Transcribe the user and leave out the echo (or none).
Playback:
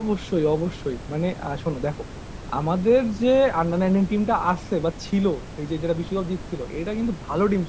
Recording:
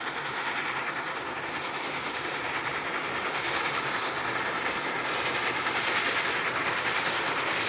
none